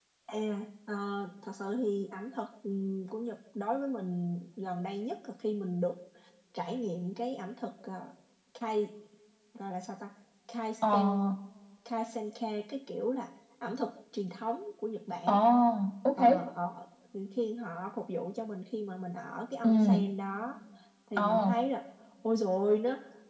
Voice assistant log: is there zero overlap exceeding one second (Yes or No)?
Yes